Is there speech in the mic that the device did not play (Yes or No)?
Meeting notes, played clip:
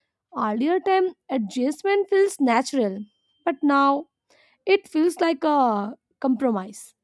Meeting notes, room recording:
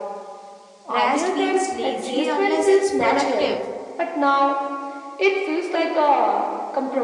Yes